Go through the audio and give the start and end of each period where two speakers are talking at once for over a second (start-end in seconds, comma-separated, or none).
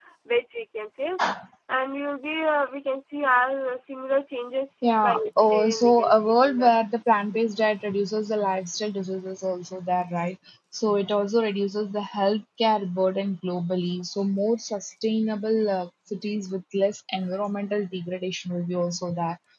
5.1-6.7